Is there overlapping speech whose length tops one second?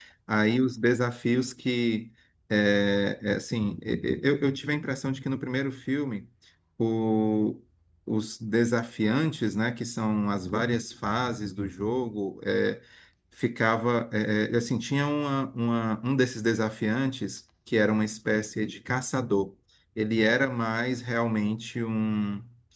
No

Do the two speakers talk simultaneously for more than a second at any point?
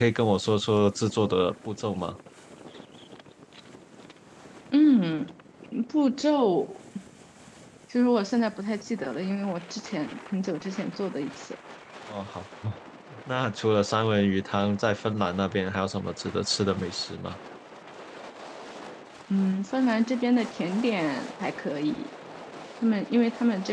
No

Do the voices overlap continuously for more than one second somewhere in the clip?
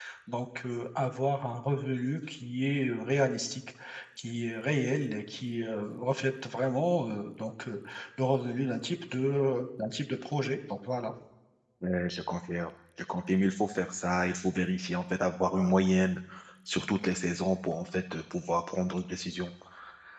No

